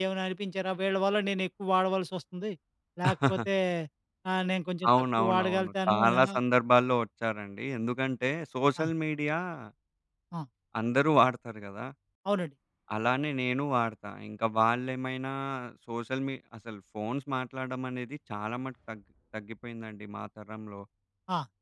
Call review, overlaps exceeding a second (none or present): present